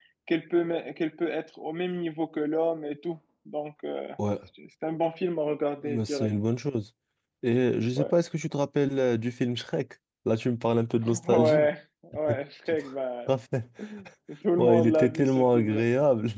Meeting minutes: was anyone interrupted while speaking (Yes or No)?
Yes